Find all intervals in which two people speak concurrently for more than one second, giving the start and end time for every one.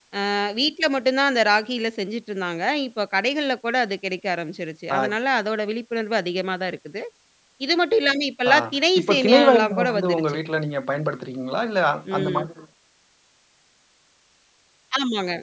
9.0-10.4

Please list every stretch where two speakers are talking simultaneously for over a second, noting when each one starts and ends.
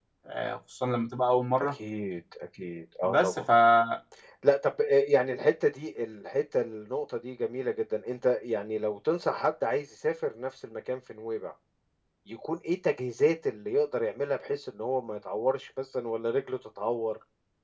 none

